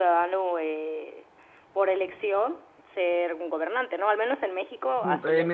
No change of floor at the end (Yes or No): No